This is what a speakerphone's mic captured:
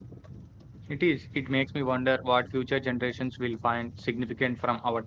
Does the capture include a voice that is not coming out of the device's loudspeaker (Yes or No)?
Yes